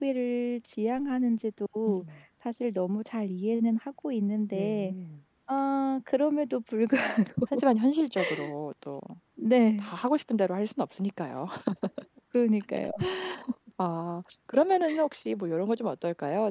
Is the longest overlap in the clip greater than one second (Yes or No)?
No